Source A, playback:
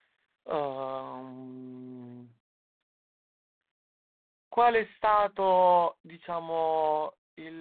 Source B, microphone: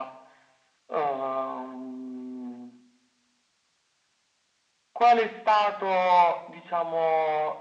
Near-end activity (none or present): none